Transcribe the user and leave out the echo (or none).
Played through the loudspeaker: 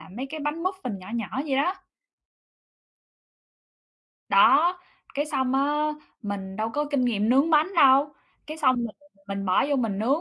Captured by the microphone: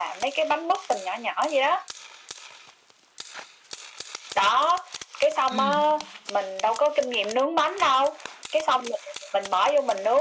Ừm.